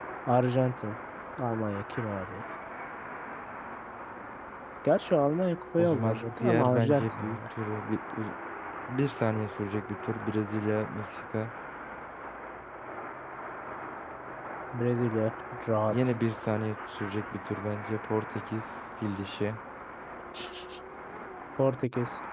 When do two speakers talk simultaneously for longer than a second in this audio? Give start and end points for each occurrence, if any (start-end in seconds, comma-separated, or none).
5.8-7.4